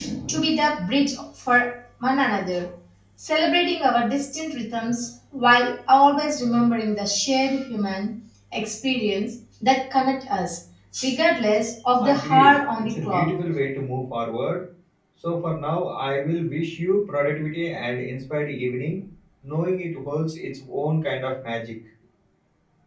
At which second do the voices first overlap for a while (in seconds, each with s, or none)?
12.0 s